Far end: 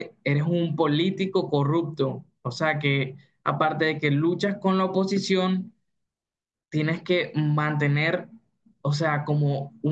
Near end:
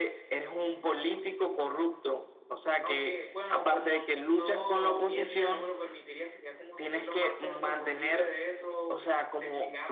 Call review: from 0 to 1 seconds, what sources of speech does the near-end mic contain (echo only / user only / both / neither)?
echo only